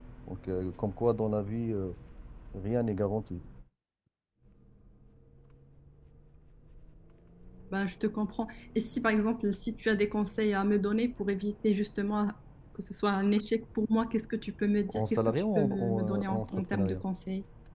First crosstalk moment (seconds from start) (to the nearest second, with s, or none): 15 s